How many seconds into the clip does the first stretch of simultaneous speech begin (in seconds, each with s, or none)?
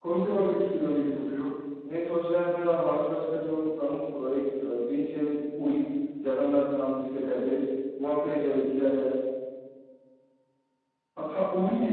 none